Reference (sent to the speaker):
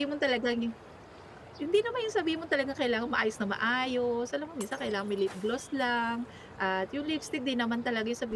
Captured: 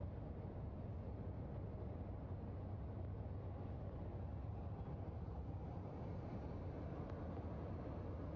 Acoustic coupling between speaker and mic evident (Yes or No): No